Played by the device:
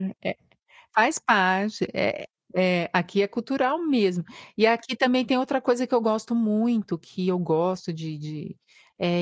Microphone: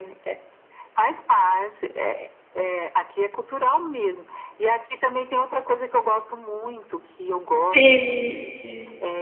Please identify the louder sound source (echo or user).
user